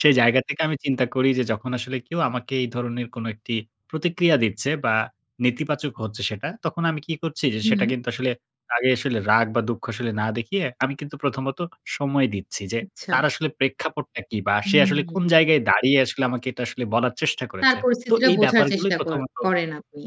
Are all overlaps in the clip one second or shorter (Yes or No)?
No